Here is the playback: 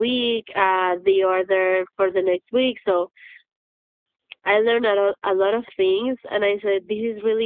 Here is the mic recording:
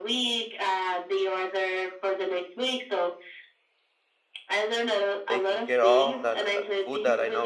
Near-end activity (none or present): present